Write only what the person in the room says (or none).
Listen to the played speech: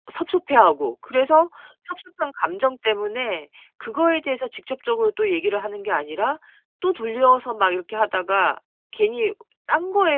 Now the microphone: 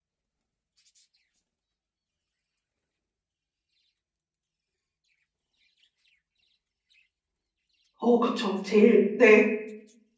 어 그쵸. 제일 네.